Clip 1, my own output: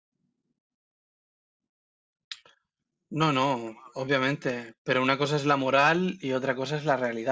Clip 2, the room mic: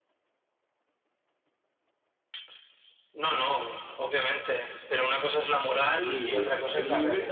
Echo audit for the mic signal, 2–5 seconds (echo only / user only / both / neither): echo only